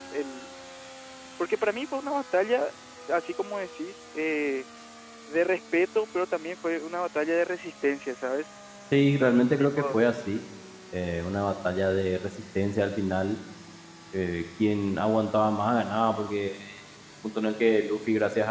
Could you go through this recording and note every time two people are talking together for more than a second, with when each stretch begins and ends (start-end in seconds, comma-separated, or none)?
none